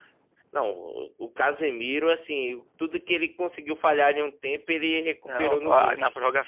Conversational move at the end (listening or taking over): taking over